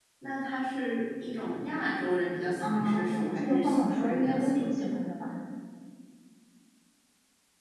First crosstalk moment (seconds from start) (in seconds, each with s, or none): 2.6 s